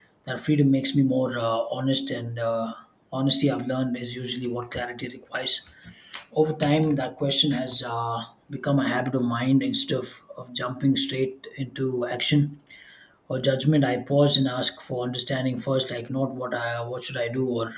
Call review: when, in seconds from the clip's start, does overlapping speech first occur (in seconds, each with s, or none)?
none